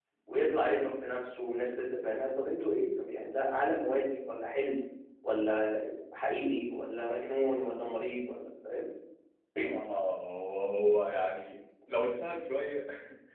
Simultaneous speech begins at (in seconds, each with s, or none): none